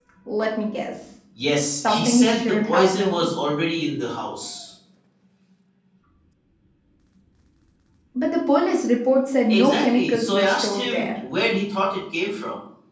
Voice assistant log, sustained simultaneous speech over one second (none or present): present